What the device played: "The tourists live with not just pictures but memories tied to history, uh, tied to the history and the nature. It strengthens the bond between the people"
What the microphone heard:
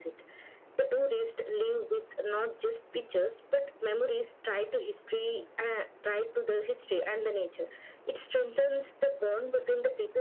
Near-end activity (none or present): none